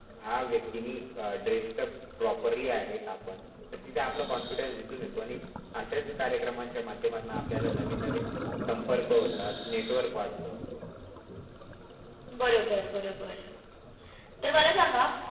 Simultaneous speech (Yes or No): No